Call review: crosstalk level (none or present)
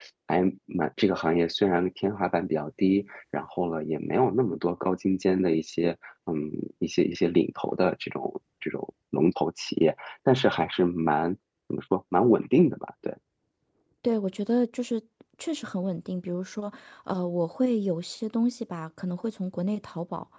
none